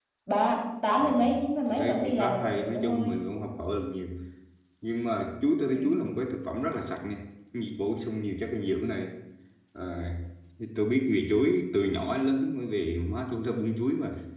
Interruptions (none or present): present